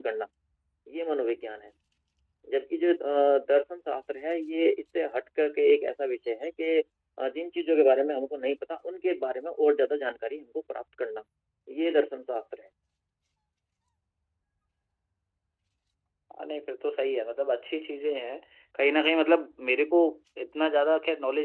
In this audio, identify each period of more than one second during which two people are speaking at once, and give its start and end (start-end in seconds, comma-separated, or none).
none